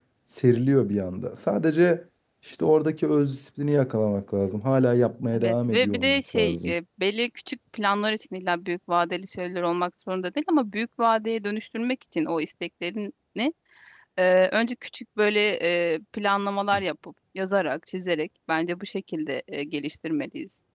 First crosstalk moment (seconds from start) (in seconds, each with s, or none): 5.3 s